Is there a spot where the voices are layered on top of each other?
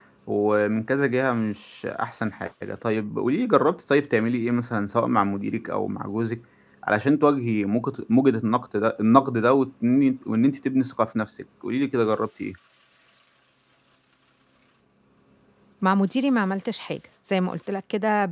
No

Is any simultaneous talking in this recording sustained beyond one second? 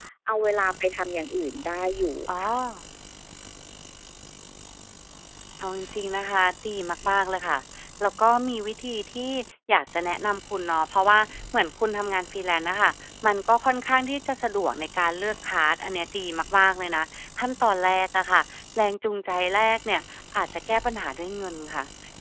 No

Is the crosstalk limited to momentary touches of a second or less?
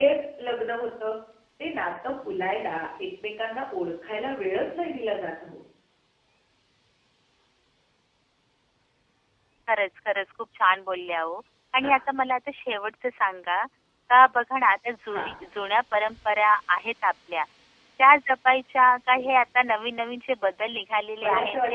Yes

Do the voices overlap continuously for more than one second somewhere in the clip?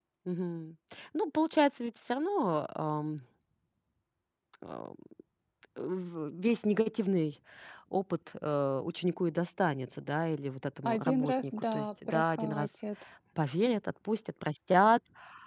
Yes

